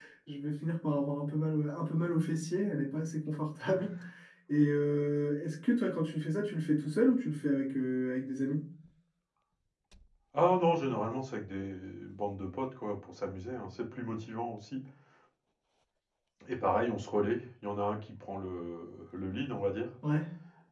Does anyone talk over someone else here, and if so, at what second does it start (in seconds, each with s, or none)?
none